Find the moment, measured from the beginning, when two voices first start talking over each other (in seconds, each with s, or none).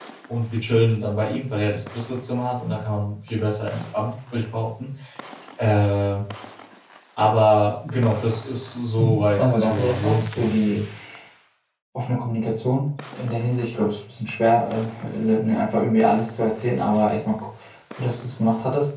9.0 s